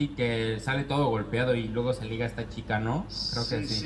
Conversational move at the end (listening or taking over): taking over